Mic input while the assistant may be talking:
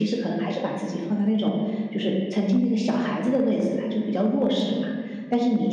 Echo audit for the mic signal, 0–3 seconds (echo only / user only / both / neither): echo only